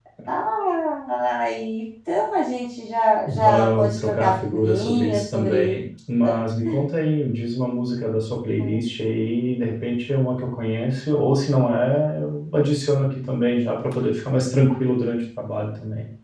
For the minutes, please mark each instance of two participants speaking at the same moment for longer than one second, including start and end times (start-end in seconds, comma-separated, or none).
3.3-5.8